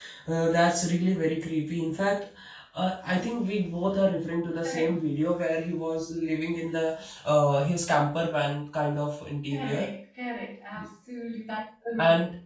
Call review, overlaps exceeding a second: none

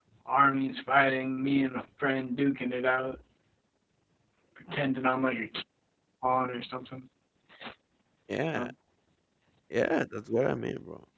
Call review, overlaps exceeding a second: none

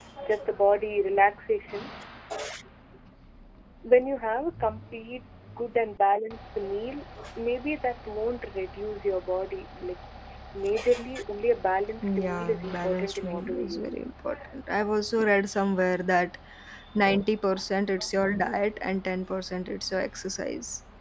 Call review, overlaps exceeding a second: present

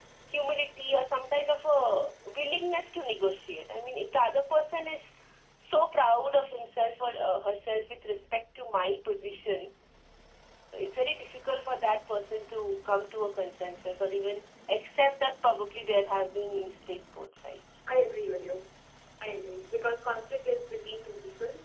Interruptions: none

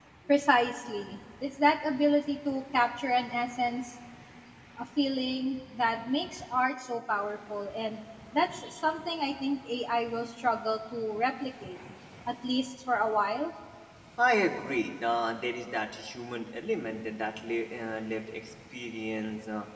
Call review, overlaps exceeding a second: none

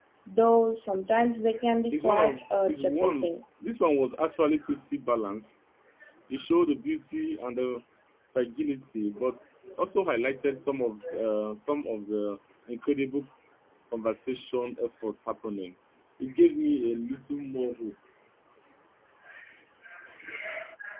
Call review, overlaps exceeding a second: present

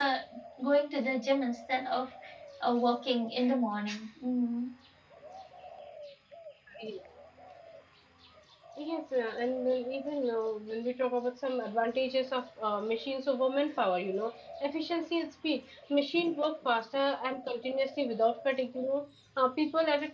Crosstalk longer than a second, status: none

